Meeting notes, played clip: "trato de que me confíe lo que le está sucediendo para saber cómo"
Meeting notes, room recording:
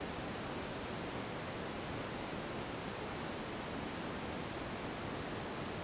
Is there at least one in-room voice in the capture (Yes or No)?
No